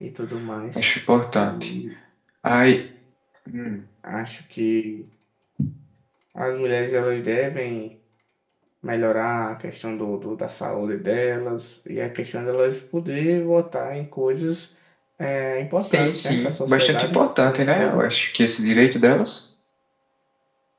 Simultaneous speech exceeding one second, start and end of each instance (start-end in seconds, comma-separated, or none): 15.8-18.0